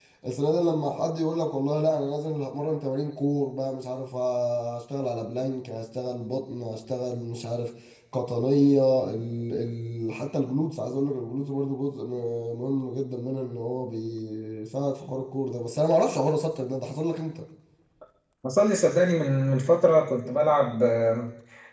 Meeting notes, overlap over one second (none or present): none